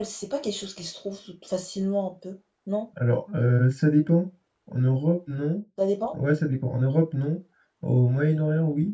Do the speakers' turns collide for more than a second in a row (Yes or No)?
No